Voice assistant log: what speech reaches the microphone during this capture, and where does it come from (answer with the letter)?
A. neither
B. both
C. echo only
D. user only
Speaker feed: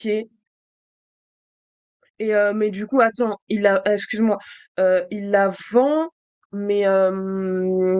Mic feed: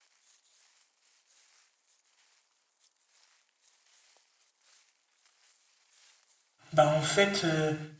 D